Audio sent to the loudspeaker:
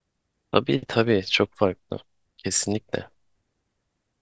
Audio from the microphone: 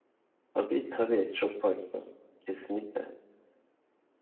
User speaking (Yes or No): No